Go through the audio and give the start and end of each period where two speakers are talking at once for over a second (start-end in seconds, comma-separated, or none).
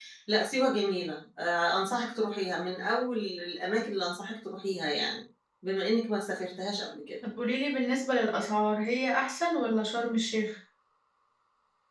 none